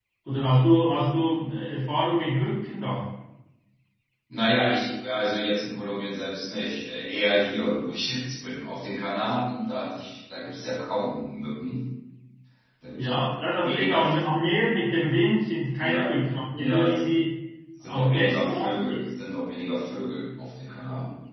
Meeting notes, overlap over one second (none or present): present